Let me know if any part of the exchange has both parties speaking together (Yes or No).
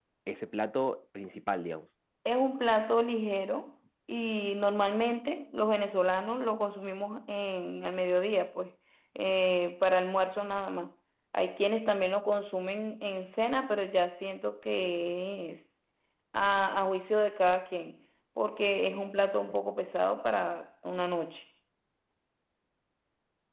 No